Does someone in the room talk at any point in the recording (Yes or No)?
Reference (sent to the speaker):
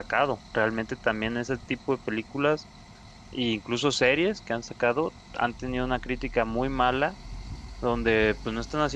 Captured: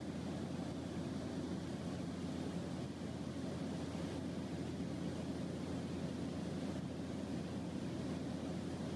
No